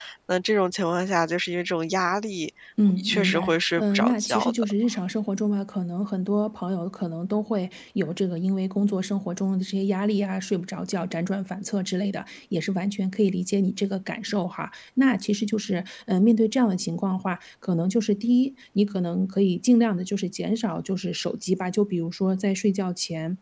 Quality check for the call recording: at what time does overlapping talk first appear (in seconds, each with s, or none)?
2.8 s